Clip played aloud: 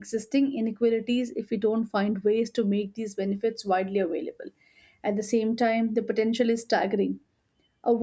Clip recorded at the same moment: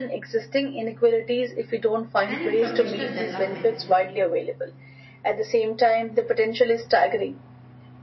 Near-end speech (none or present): present